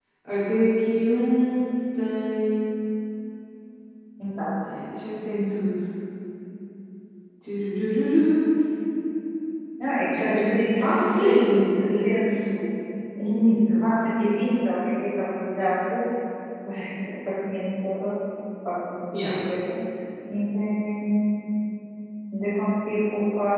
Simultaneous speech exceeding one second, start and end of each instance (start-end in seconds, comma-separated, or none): 10.8-12.1